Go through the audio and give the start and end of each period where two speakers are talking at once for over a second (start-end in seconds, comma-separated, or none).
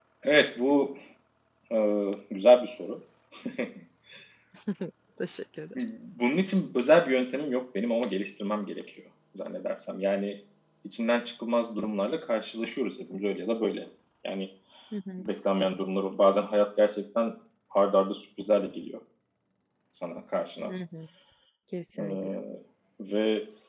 none